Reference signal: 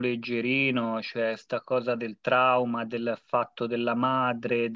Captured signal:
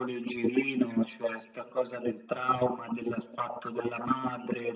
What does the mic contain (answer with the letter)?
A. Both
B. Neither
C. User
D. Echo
D